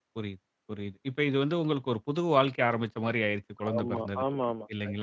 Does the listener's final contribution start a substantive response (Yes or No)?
Yes